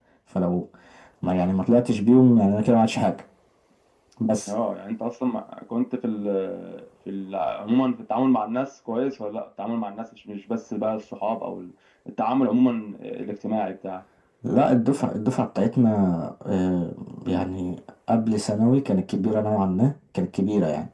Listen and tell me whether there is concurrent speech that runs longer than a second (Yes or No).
No